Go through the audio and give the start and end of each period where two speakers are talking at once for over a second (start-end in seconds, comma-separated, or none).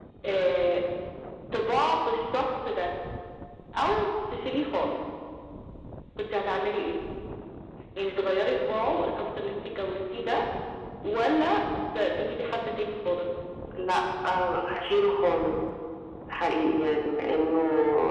none